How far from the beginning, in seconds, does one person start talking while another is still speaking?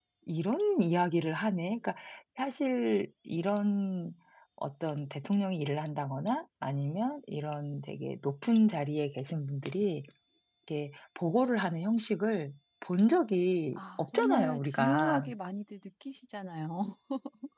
13.7 s

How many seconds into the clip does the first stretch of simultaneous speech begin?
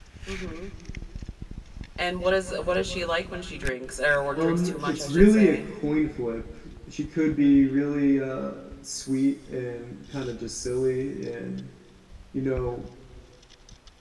4.3 s

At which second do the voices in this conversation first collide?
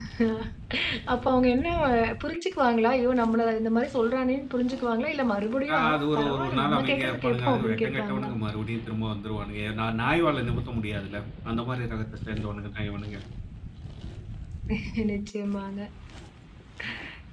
5.7 s

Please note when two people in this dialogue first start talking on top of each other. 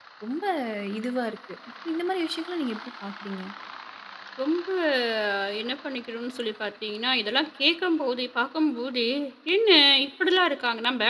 none

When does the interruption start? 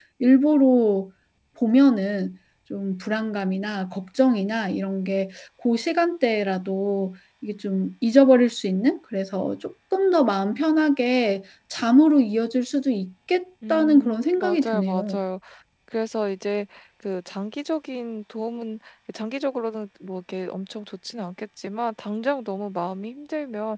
13.6 s

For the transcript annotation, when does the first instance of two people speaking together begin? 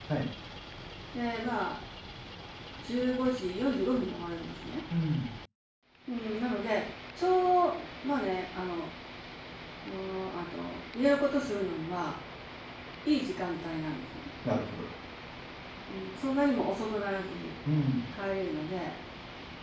none

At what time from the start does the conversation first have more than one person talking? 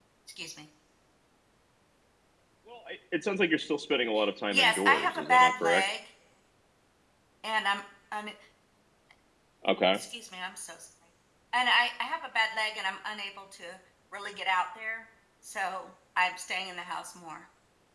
4.5 s

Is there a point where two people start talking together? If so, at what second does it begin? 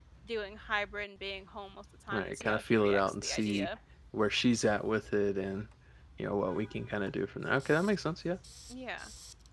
2.1 s

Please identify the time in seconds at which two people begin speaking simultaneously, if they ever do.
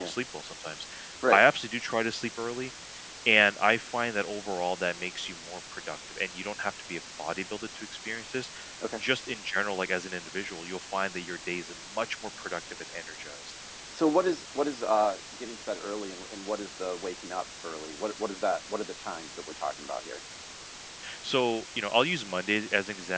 none

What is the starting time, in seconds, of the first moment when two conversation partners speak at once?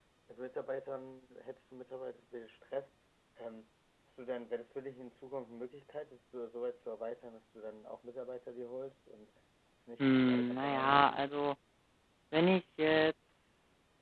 10.0 s

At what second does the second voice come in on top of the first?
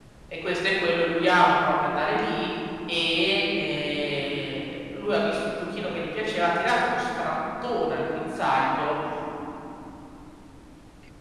none

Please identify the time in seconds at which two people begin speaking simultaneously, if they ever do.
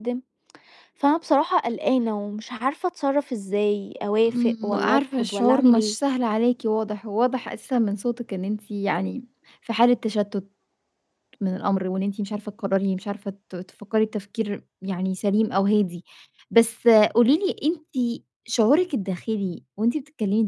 4.3 s

